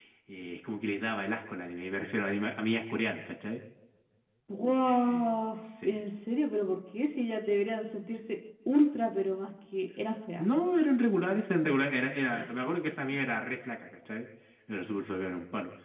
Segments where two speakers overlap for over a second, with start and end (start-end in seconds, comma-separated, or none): none